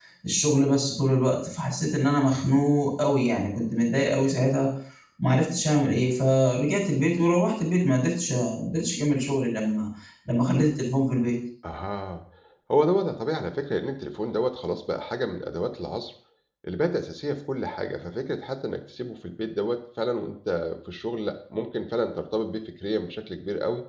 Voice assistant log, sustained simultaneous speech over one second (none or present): none